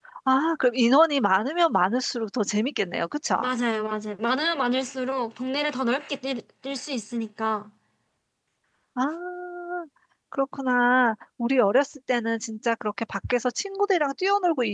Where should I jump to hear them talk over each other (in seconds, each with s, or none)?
none